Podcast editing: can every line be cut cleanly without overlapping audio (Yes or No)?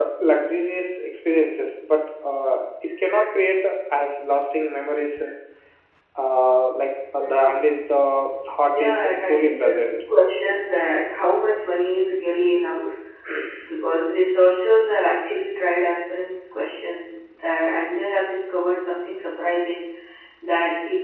No